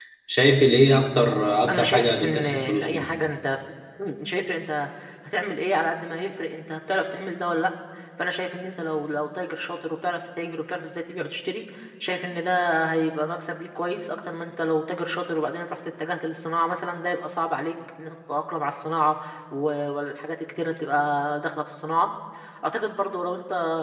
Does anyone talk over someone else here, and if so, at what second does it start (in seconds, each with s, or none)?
1.7 s